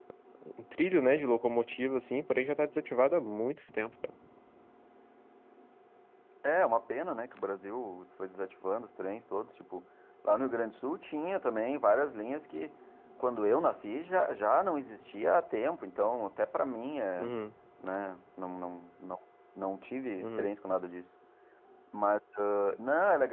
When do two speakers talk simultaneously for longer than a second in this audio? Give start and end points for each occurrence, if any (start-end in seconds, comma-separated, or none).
none